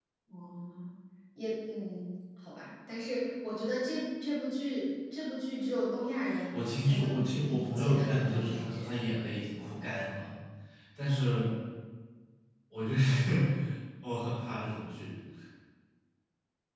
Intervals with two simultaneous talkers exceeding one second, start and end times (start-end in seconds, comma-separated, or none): 6.5-8.9